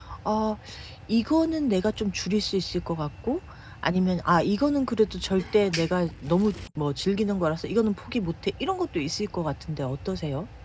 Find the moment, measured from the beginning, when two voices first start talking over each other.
none

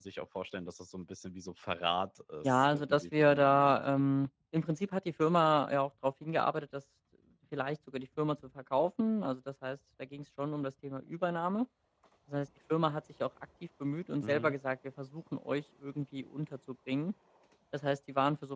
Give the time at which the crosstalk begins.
2.4 s

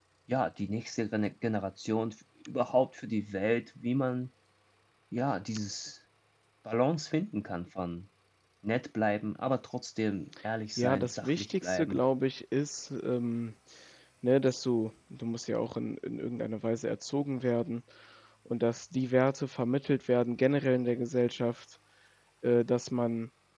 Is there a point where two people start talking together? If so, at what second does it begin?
10.8 s

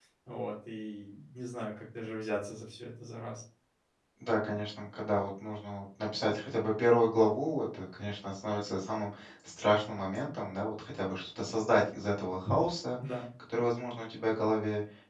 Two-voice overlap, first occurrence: none

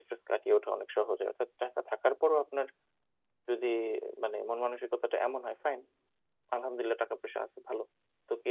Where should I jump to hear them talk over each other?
none

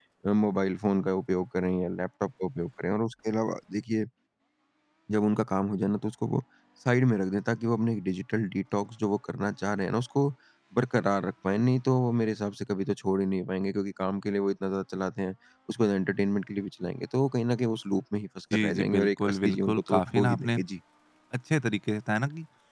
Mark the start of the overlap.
18.5 s

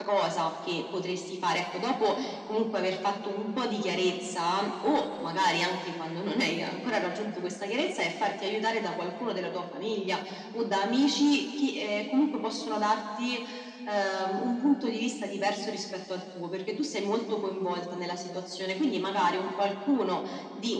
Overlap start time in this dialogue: none

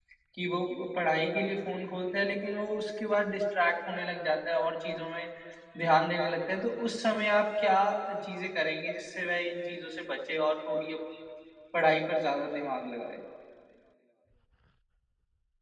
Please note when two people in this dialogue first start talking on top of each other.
none

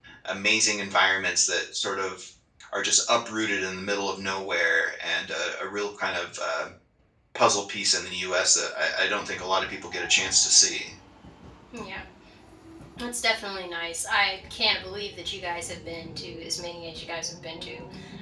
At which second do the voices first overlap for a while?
none

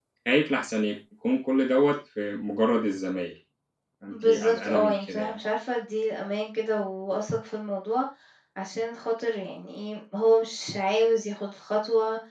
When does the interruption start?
4.1 s

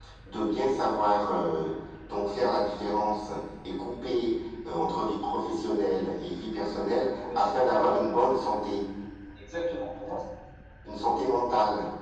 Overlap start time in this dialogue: 7.0 s

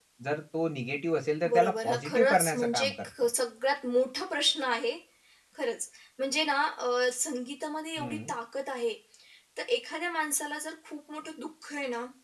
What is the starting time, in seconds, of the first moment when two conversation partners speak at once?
1.5 s

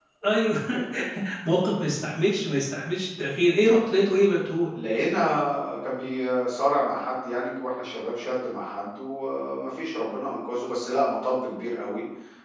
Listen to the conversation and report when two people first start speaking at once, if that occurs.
none

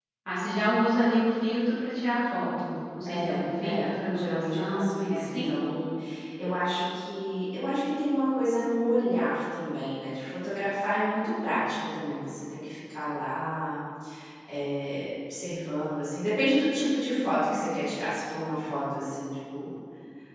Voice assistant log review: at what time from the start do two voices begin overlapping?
3.0 s

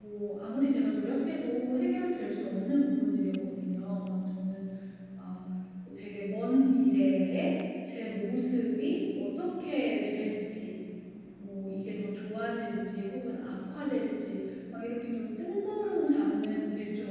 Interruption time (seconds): none

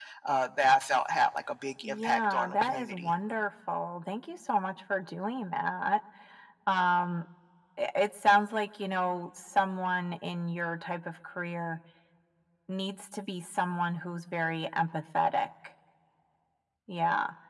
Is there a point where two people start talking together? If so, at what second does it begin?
1.8 s

